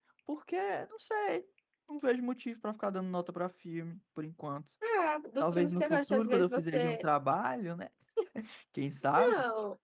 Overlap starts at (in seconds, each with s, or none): 5.4 s